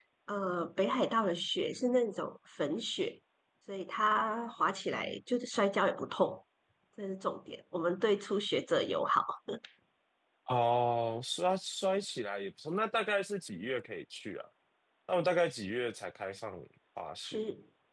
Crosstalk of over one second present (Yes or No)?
No